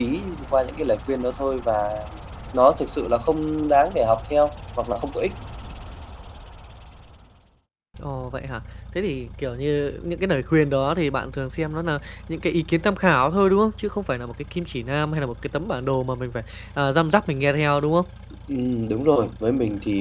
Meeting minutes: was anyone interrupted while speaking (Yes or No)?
No